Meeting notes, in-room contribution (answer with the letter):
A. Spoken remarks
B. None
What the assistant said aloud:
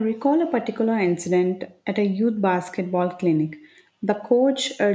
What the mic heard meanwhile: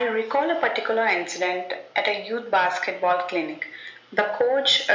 B